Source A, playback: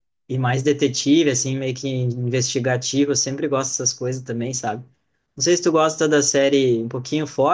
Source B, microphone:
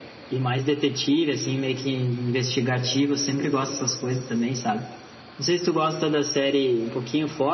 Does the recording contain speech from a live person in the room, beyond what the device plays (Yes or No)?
No